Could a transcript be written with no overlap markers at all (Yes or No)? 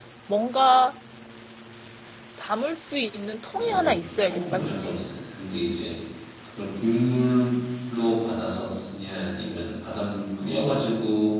No